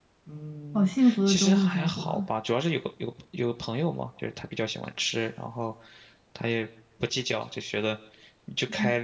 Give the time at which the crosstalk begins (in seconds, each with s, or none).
0.7 s